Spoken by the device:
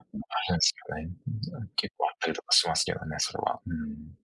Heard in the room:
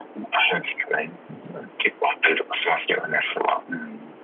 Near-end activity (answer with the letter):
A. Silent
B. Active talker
A